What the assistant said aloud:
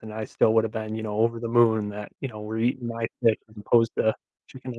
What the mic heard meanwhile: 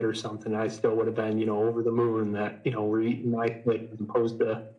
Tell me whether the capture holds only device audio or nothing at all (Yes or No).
Yes